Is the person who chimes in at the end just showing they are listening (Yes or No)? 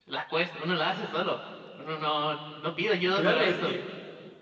No